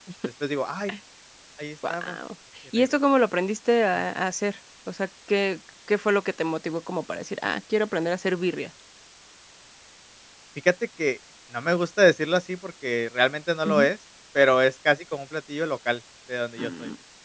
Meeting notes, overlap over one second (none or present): none